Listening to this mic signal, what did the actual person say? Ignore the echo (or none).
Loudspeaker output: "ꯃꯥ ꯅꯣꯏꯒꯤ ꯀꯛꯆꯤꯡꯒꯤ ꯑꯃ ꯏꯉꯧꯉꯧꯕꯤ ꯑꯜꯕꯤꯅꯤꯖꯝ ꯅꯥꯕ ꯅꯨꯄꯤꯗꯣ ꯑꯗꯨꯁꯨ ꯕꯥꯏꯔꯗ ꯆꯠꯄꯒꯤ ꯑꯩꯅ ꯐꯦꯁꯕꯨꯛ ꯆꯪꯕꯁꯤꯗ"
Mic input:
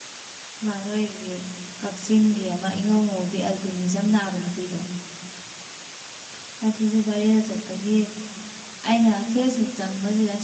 none